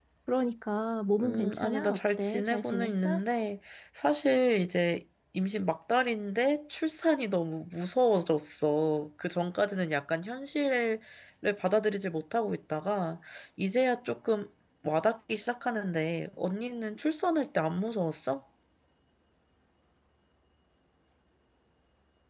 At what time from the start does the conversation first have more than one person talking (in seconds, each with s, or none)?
1.2 s